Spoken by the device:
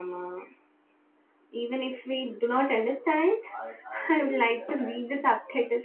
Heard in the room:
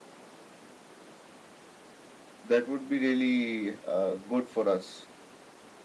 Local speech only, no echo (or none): That would be really uh, good for us.